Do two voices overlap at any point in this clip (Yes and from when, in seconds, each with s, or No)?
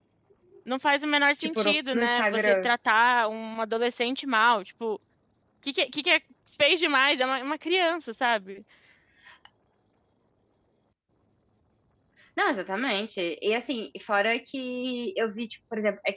Yes, from 1.4 s